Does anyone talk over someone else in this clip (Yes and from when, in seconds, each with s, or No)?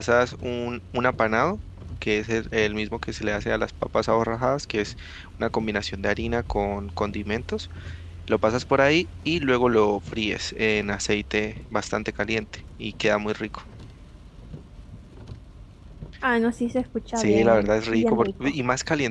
Yes, from 17.2 s